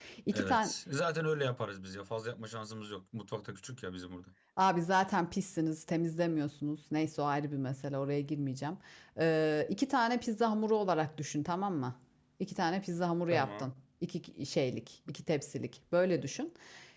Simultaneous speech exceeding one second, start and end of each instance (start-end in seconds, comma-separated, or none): none